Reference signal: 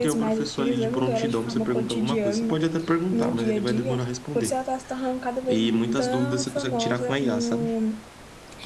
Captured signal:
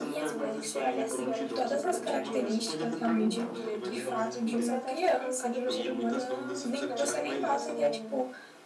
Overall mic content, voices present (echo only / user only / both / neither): both